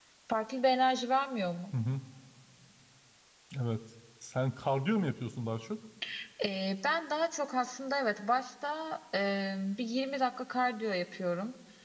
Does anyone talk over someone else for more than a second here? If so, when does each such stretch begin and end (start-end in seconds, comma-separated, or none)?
none